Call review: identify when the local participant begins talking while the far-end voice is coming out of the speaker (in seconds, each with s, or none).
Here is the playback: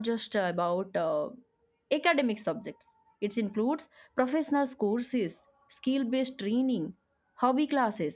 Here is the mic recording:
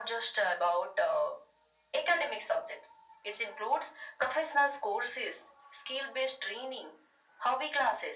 none